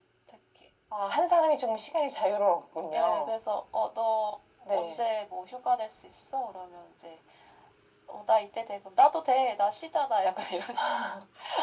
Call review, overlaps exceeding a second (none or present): none